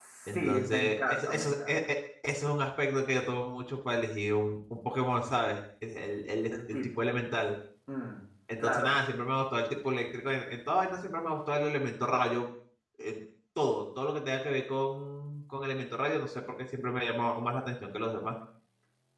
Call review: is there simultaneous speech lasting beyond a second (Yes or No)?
Yes